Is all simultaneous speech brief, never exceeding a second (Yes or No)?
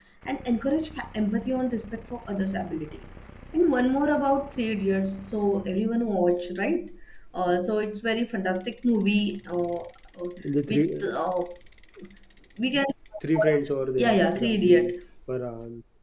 No